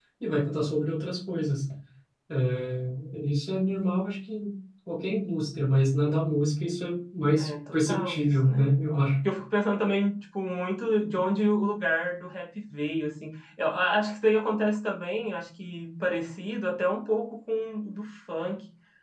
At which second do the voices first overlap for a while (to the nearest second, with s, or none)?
7 s